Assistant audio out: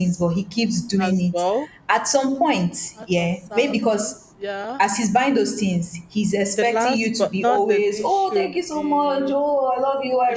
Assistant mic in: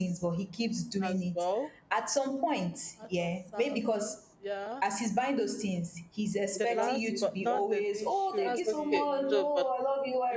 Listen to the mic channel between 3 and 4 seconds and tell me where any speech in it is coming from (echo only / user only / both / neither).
echo only